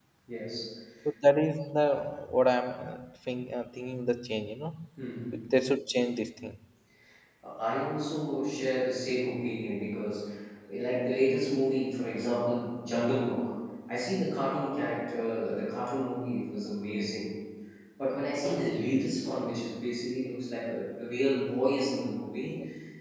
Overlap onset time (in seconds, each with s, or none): none